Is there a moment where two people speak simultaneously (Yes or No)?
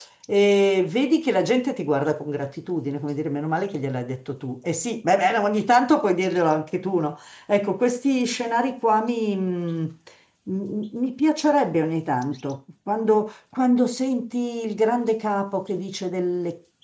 No